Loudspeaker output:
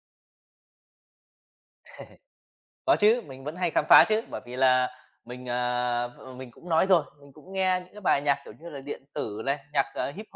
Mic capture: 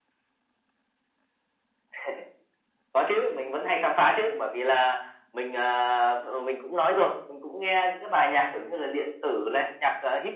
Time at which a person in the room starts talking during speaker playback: none

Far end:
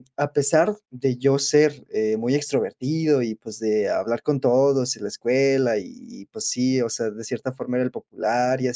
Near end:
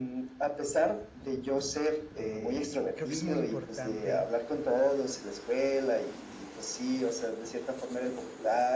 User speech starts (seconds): 2.2 s

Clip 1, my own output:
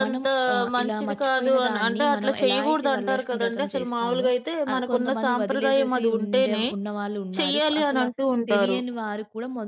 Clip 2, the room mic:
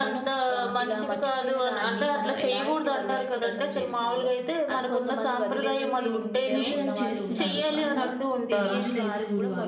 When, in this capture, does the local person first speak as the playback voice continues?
6.5 s

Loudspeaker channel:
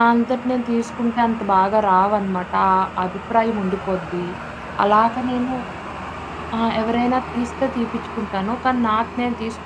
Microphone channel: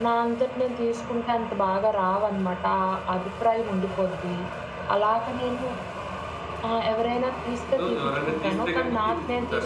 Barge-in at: 7.8 s

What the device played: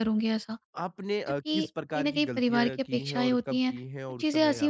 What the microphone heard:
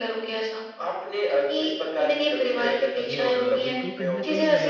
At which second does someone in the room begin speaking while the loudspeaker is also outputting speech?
3.1 s

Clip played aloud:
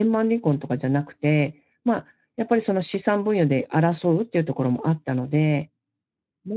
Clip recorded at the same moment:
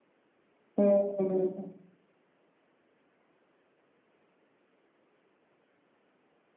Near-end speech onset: 0.8 s

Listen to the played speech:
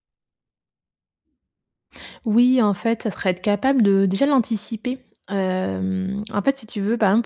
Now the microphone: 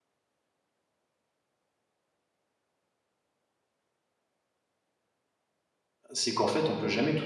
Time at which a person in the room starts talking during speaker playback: 6.1 s

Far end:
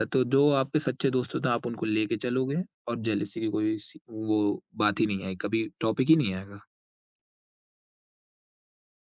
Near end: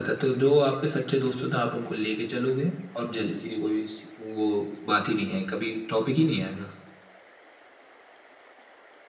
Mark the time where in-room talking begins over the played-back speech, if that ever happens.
none

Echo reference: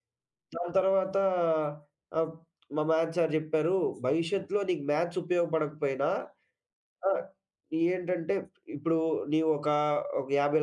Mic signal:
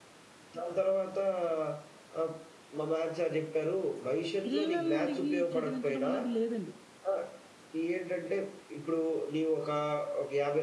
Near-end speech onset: 4.4 s

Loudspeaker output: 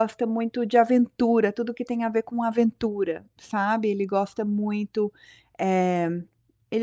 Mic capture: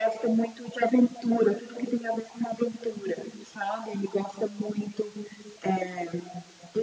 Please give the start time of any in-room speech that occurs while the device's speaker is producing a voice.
none

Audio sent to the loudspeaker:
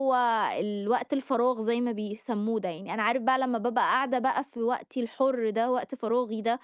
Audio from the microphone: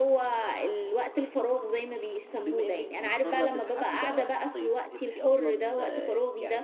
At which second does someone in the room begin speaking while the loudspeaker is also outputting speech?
2.4 s

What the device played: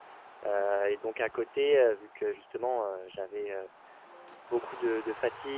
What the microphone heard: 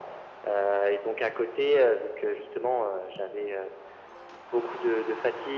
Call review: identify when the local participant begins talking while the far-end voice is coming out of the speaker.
none

